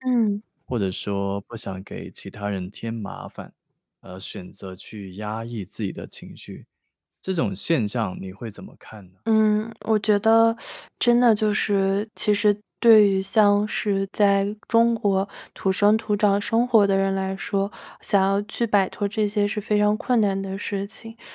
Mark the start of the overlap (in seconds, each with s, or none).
none